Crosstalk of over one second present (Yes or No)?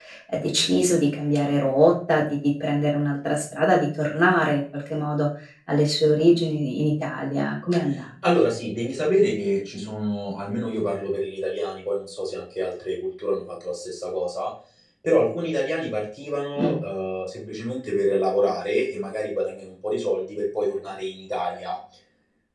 No